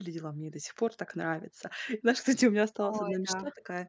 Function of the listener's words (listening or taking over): listening